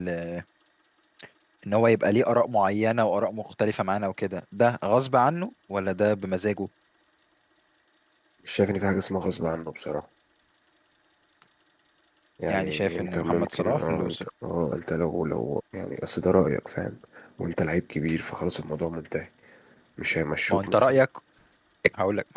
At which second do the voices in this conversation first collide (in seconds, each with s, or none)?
12.5 s